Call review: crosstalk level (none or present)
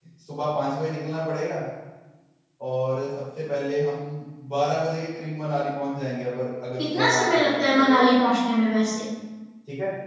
present